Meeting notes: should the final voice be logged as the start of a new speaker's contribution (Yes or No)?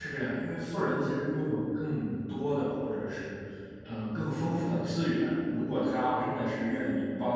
No